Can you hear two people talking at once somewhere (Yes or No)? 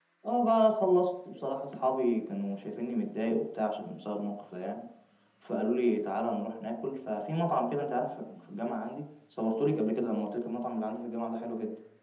No